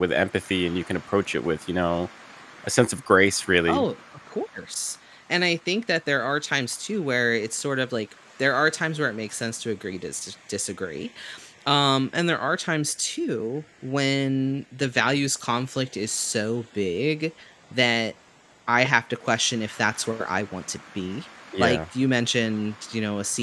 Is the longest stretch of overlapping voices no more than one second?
Yes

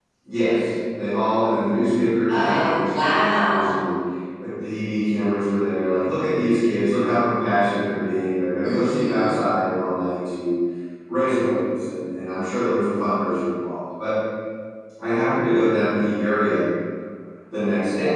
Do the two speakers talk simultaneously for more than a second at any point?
Yes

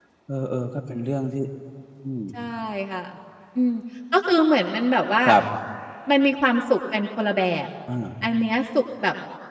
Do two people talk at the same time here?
No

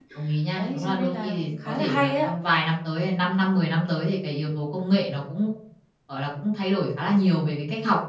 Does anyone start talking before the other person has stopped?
Yes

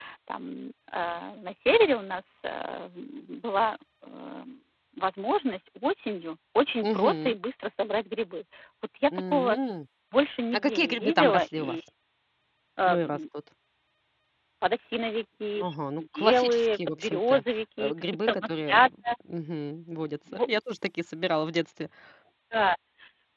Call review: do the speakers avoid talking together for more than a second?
No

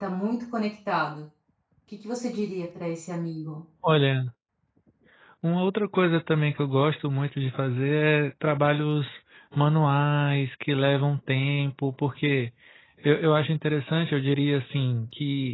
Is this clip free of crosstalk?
Yes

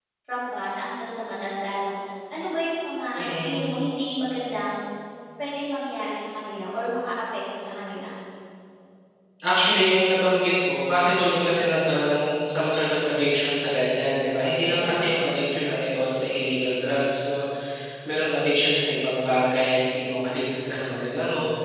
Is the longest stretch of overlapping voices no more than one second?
Yes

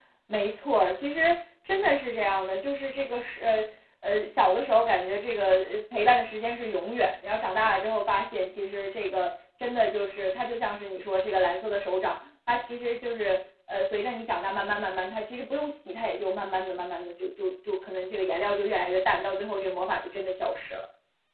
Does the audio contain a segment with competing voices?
No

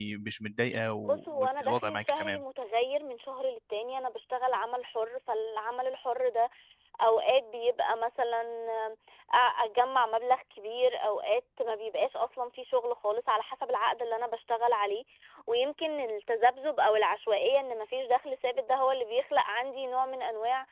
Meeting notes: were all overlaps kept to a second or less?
No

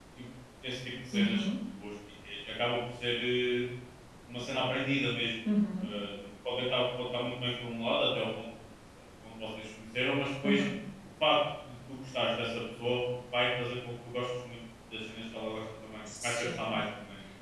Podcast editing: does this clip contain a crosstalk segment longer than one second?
No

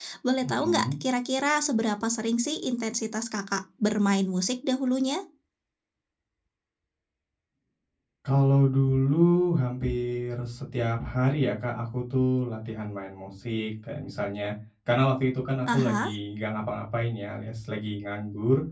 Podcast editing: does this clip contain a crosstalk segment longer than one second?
No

